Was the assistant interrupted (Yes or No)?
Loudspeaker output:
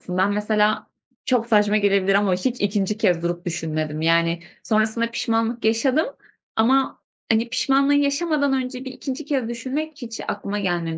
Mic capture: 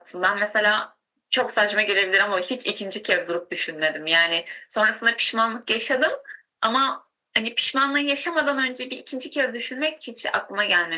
No